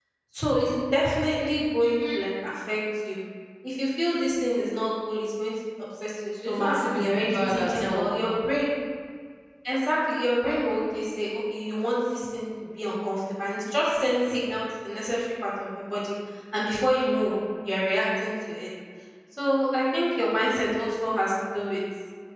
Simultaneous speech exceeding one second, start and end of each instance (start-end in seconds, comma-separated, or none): 6.5-8.1